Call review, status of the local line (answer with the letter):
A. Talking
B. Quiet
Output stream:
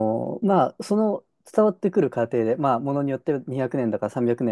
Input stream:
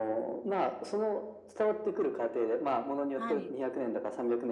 A